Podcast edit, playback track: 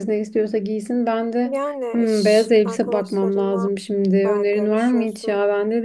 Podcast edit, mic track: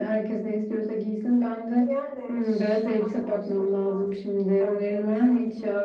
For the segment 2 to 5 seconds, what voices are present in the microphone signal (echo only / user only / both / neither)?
echo only